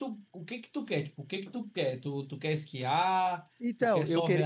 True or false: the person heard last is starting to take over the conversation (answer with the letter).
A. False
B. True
B